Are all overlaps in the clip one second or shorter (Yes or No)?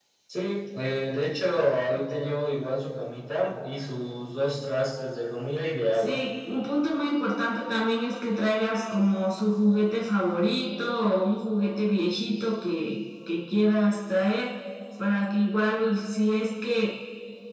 Yes